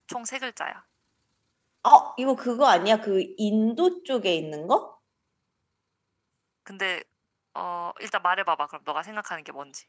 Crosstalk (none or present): none